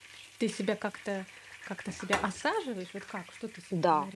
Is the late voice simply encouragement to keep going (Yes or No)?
No